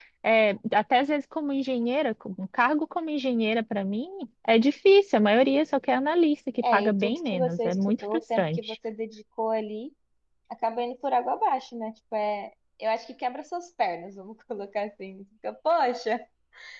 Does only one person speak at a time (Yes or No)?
No